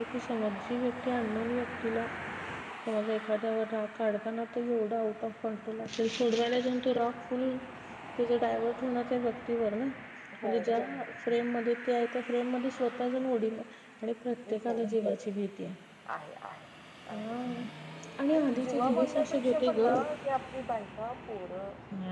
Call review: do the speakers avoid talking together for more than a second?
No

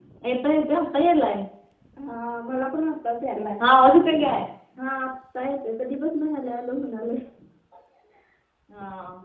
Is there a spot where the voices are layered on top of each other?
No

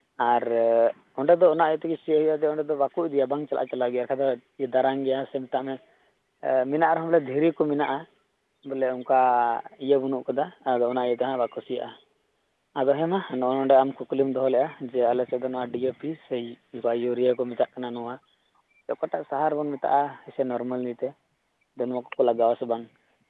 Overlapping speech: No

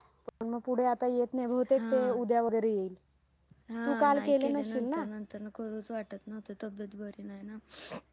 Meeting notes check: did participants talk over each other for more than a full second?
Yes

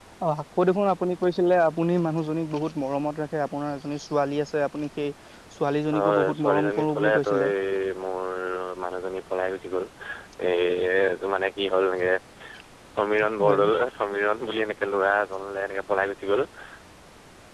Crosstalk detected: Yes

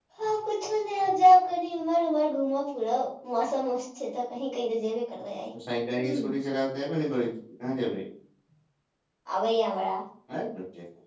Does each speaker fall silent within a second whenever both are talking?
Yes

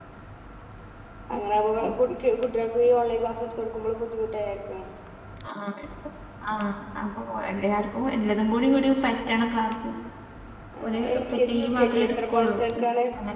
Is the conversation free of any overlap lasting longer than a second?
No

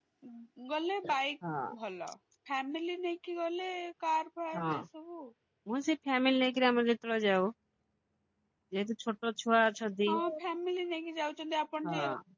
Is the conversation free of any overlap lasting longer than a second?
Yes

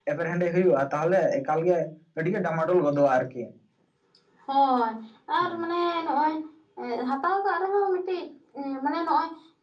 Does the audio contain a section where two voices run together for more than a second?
No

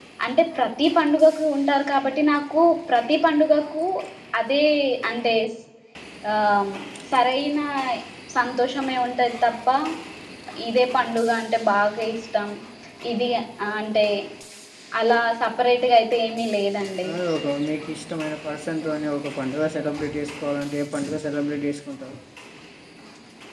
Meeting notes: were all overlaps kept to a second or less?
Yes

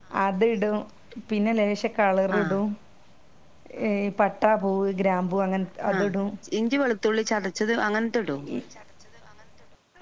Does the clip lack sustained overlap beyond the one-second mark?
Yes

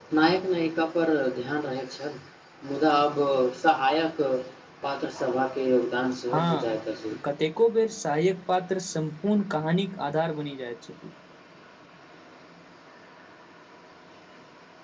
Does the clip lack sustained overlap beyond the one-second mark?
Yes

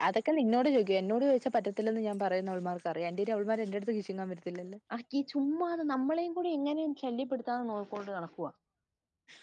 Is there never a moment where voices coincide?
Yes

